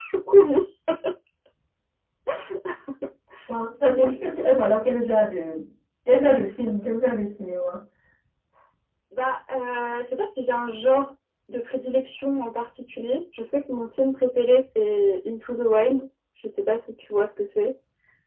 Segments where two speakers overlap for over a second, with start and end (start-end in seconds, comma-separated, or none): none